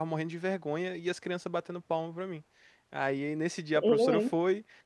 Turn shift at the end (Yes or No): No